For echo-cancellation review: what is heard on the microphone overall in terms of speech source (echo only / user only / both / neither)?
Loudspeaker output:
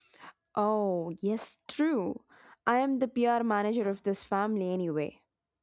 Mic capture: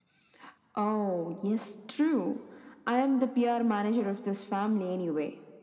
echo only